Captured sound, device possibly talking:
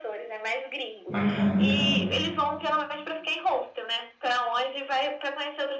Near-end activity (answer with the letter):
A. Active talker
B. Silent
A